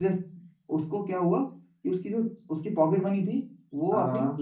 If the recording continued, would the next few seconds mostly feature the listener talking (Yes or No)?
No